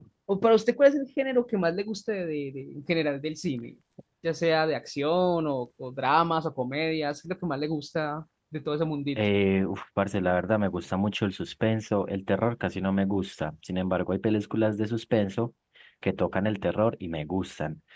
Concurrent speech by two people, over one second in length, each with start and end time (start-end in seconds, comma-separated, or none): none